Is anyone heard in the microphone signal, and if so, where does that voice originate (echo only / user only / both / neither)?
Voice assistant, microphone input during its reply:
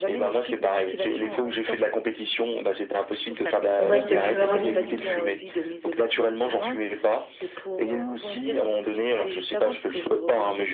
both